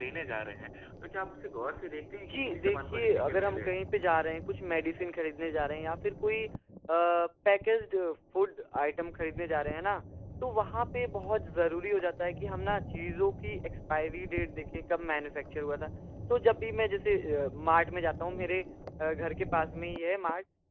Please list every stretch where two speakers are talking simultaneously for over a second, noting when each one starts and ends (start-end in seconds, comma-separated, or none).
2.3-3.7